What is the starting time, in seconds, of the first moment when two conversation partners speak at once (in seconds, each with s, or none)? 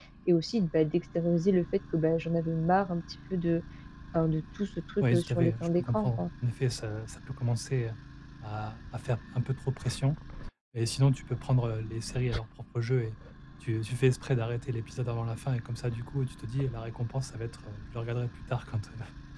5.0 s